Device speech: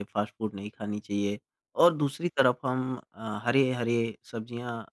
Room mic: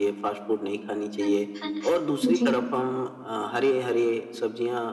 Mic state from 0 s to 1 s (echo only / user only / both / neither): echo only